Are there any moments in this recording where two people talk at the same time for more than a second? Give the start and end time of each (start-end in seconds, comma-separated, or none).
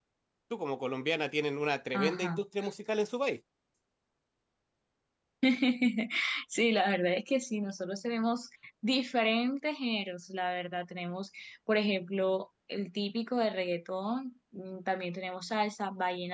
none